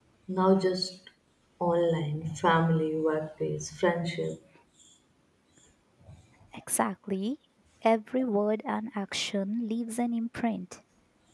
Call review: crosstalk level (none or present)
none